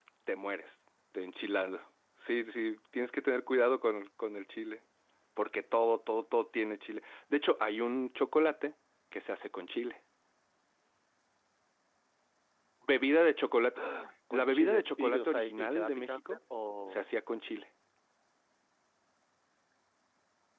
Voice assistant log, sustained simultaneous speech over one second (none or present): present